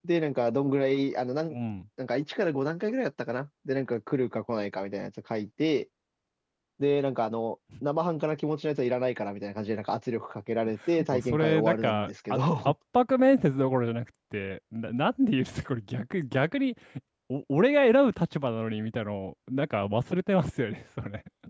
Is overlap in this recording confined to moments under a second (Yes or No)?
No